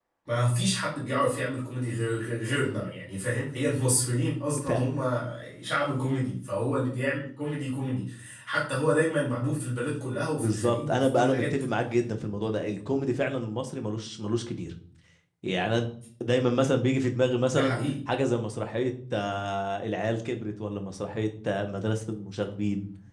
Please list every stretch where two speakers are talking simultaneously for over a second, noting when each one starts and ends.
10.4-11.7

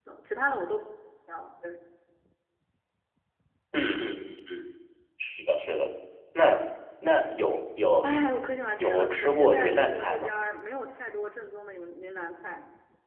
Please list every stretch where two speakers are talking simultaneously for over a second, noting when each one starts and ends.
8.8-10.3

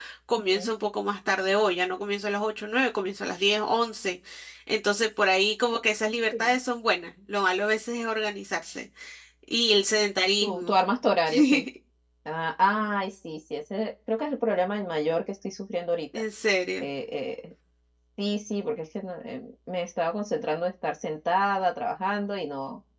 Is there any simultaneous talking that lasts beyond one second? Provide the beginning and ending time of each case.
none

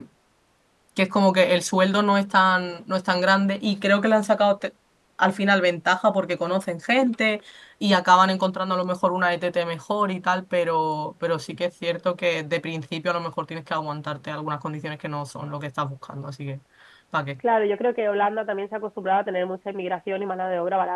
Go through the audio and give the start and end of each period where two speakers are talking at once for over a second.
none

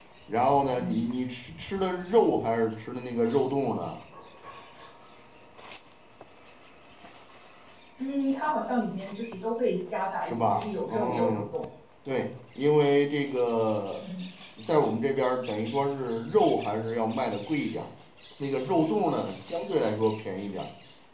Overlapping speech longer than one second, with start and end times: 10.2-11.5

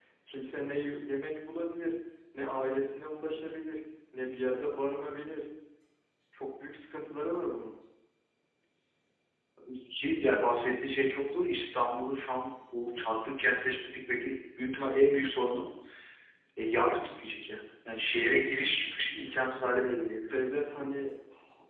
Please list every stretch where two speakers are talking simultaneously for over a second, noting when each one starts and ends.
none

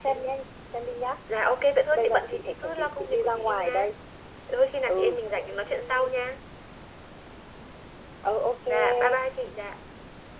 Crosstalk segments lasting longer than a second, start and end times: 1.9-3.9

